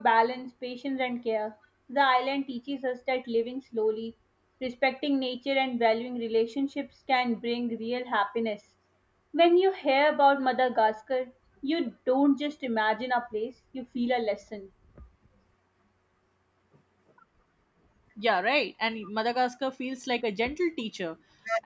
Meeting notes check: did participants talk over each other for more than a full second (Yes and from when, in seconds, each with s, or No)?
No